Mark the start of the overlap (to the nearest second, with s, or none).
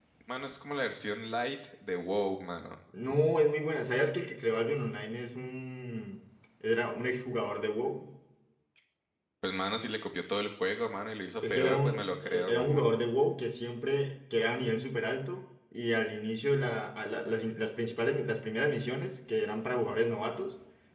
11 s